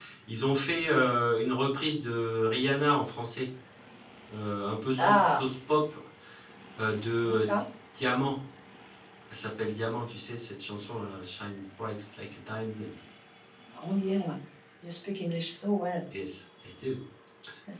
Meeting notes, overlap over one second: none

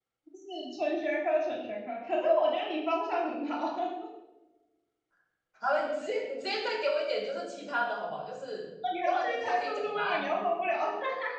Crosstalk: present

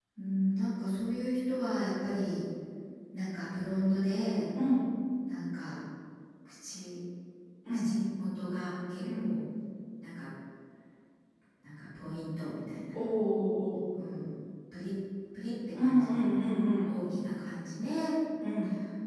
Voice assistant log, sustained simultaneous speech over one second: none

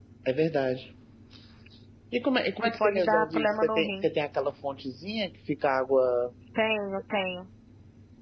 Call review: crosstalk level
present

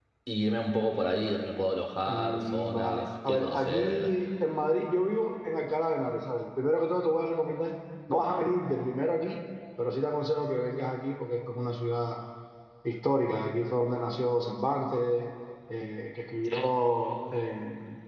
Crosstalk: present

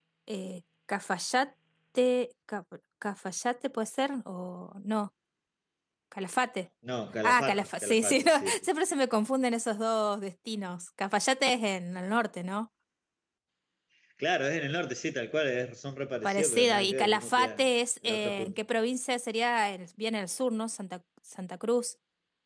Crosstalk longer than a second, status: present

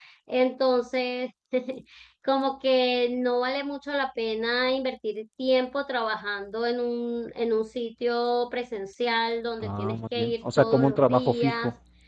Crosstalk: present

